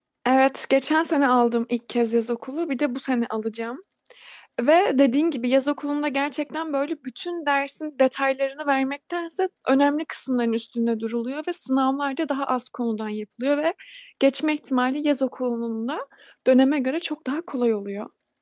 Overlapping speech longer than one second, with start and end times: none

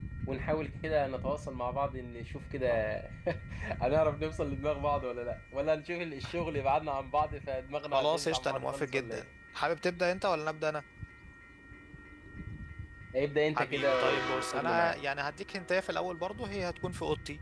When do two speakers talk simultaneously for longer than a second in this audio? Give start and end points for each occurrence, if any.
7.8-9.2, 13.5-15.0

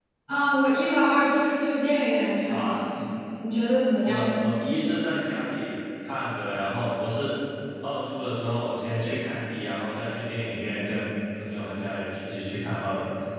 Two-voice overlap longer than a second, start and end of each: none

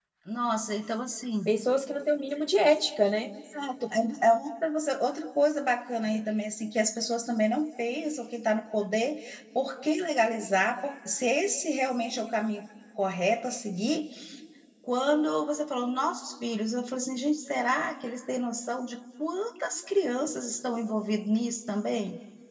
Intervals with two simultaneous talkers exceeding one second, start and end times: none

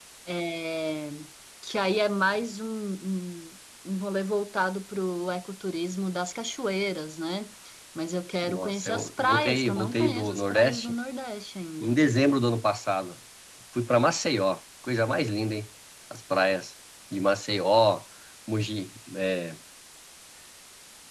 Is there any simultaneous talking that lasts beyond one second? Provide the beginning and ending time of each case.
8.4-11.0

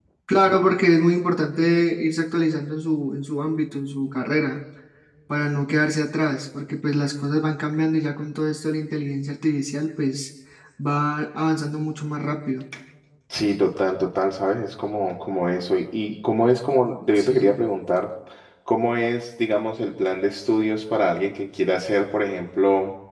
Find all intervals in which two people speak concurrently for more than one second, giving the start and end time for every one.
none

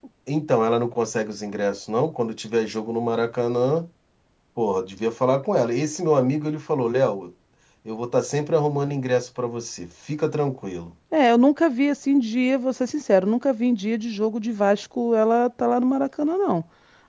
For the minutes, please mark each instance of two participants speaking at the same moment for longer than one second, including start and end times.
none

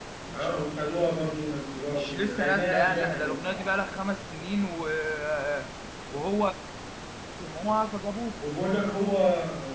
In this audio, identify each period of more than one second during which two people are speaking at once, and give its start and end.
1.9-3.7

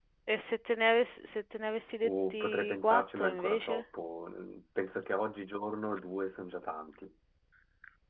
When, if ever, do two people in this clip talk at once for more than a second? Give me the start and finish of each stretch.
2.0-3.7

